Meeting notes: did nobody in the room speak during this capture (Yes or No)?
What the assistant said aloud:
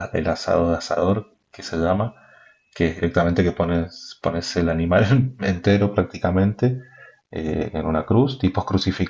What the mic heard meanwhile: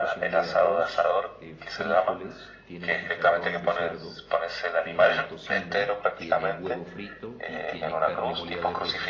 No